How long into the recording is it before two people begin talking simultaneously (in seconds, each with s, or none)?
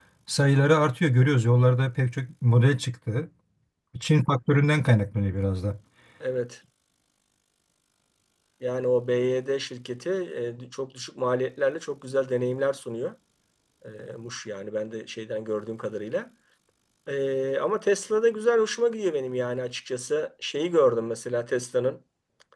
none